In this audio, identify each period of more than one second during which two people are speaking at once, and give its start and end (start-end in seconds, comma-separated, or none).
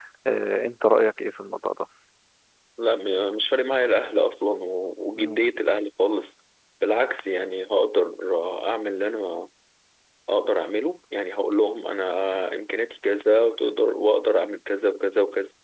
none